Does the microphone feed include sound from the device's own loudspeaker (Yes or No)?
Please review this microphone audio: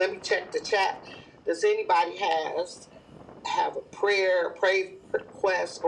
Yes